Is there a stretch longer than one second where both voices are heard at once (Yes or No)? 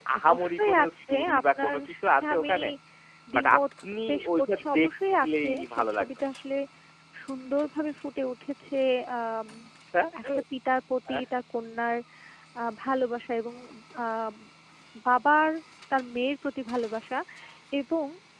Yes